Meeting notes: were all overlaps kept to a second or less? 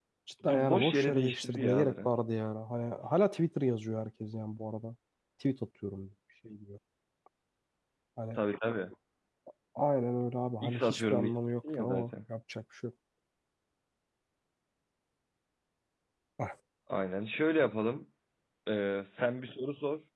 No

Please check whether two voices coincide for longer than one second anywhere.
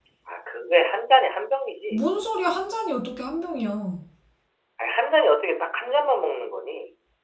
No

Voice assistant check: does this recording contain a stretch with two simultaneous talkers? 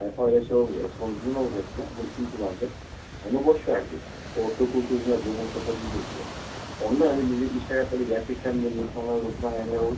No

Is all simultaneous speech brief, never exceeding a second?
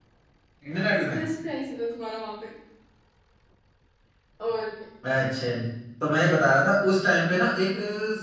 Yes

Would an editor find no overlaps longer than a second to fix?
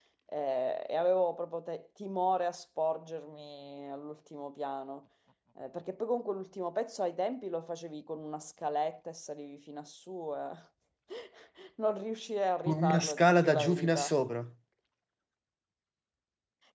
No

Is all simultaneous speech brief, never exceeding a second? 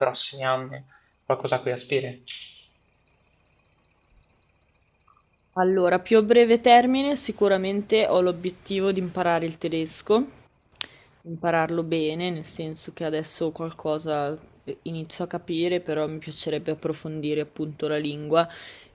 Yes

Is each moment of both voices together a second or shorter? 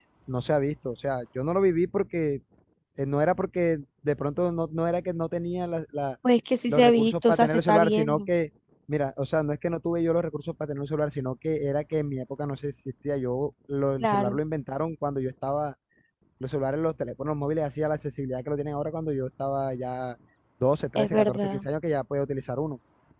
No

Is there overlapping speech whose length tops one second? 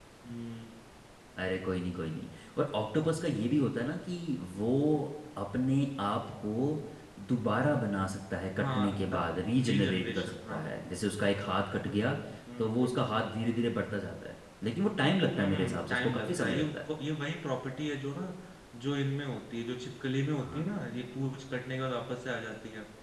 Yes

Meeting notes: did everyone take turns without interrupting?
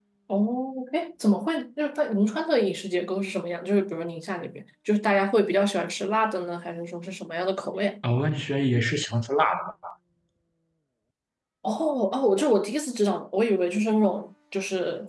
Yes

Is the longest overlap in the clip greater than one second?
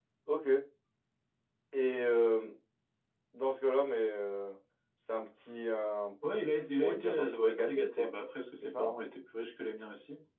Yes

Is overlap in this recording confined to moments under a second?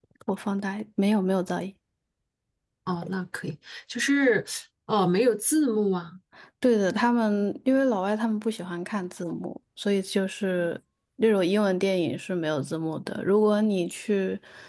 Yes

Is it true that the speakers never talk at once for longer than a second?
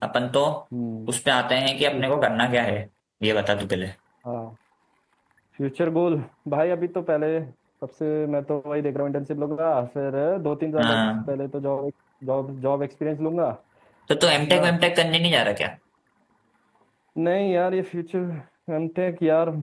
Yes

